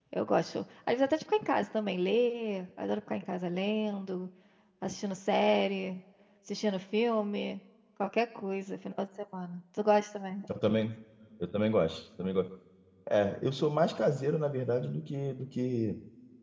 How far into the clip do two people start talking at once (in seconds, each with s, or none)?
none